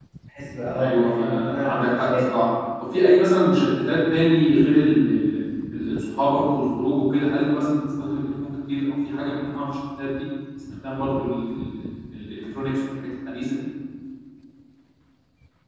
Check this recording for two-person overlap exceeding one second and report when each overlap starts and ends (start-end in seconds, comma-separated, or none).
0.7-2.3